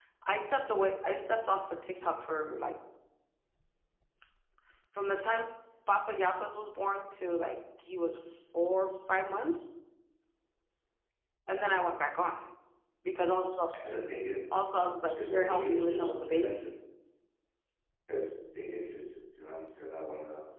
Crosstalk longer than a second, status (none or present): present